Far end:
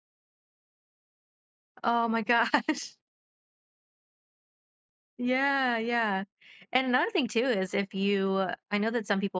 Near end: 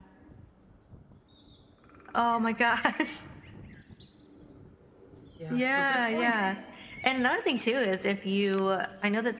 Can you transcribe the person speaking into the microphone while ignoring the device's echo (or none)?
Yeah, so good point.